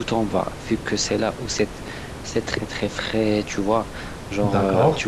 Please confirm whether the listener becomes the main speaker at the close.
No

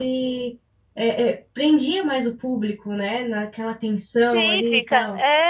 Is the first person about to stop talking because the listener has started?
Yes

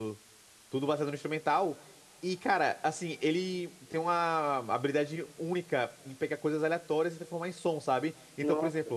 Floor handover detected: No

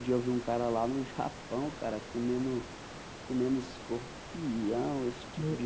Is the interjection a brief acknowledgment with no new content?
Yes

